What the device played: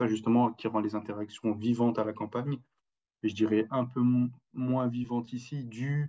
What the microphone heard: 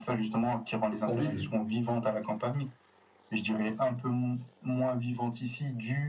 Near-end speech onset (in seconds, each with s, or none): 1.0 s